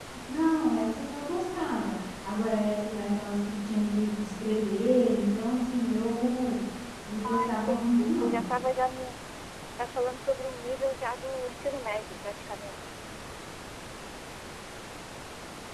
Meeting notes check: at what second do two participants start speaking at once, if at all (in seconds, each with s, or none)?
7.2 s